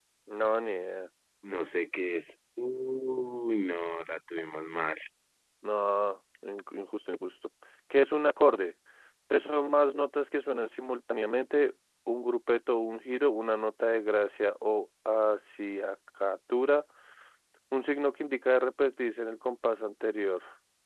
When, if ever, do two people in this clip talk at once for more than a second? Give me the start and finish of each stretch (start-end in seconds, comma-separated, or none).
none